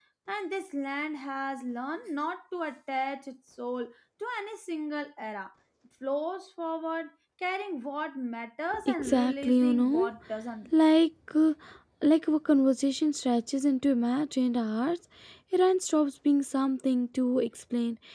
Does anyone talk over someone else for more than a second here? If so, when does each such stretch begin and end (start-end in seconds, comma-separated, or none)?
8.8-10.1